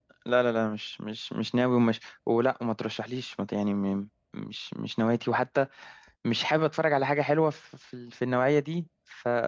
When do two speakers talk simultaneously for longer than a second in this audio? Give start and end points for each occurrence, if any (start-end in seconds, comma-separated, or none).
none